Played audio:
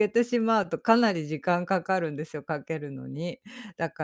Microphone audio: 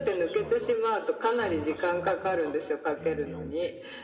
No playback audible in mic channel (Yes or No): No